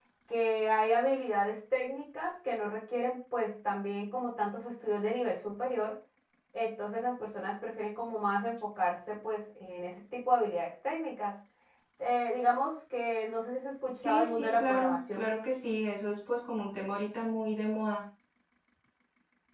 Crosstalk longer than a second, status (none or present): present